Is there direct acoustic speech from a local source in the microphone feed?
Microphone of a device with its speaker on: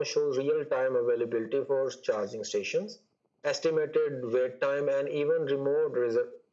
No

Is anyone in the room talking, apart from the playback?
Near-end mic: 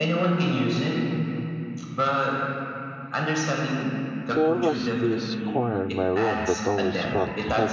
Yes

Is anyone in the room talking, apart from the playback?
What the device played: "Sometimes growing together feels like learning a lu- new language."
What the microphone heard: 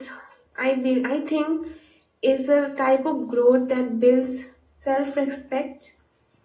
Yes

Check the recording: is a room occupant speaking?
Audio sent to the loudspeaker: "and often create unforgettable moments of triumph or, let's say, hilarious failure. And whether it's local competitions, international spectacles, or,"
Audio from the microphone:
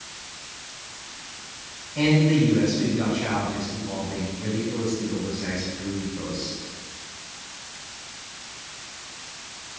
Yes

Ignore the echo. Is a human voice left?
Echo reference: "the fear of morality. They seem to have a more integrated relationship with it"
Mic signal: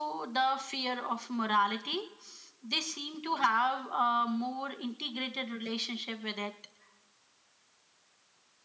No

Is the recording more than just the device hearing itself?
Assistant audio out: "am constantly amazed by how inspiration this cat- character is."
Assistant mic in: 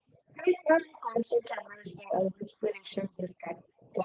No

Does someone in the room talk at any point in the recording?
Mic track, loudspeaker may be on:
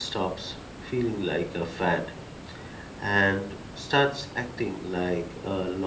Yes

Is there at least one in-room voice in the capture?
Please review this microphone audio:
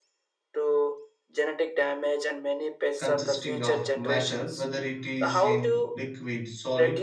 Yes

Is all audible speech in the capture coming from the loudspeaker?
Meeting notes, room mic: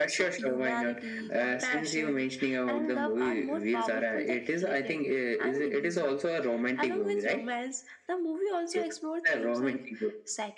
Yes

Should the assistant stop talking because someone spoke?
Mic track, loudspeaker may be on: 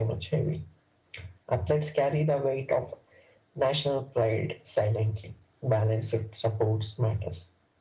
No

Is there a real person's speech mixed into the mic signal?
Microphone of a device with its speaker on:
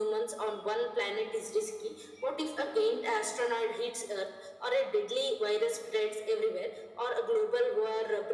No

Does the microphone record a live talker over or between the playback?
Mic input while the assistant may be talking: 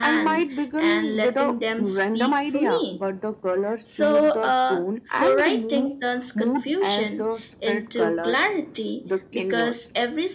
Yes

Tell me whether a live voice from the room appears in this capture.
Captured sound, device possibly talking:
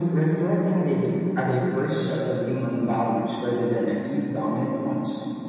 No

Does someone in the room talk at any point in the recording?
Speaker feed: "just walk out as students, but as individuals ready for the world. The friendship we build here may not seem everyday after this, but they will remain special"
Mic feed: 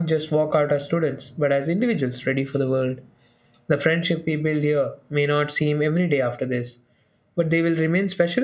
No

